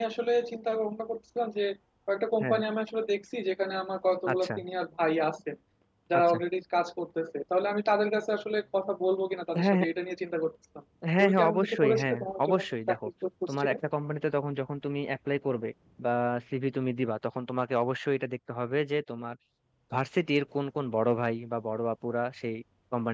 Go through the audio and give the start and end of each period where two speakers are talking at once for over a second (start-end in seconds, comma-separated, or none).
11.2-13.0